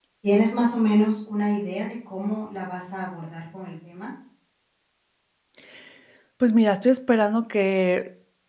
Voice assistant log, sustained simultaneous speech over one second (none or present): none